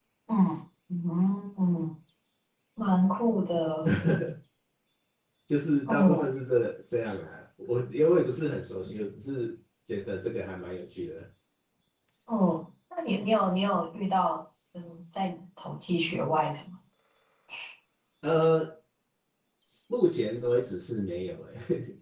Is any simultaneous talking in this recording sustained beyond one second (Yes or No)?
No